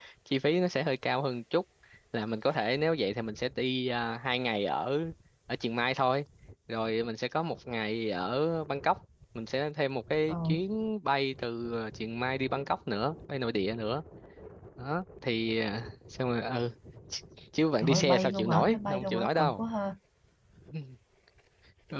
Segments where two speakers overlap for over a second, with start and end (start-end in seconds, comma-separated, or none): 17.8-19.6